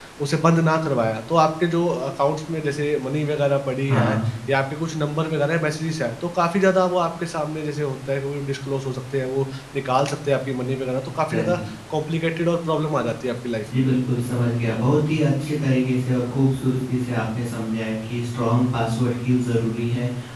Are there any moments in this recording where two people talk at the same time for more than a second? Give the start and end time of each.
none

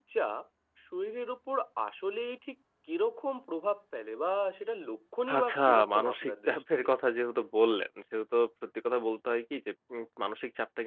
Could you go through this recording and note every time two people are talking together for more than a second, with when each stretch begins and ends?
5.3-6.6

